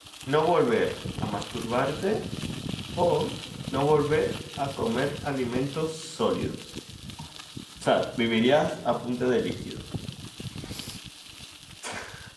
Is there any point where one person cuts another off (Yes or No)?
No